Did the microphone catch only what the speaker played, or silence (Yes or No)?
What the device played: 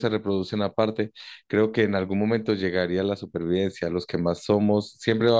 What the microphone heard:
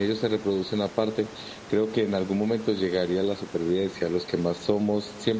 Yes